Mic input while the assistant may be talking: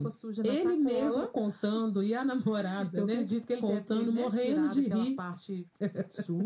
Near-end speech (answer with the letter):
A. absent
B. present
A